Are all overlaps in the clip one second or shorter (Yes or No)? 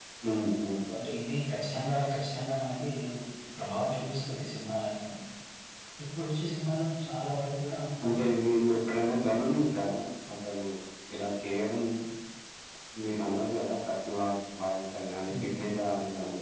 Yes